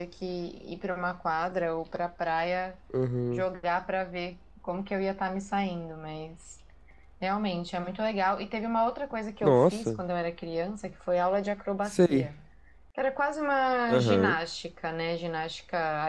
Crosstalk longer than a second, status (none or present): none